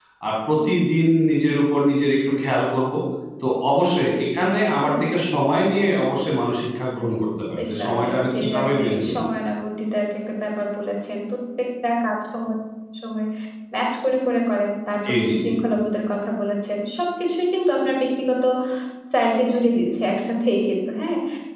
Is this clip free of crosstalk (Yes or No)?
No